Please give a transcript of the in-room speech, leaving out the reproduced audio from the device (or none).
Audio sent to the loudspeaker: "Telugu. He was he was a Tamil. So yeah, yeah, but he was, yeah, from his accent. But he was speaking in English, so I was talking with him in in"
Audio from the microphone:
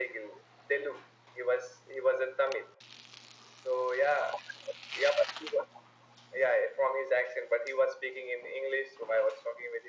none